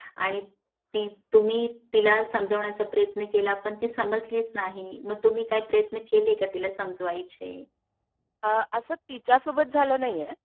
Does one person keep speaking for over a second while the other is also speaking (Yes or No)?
No